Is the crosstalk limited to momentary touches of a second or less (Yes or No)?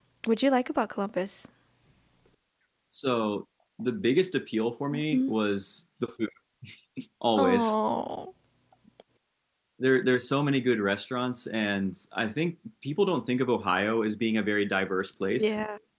Yes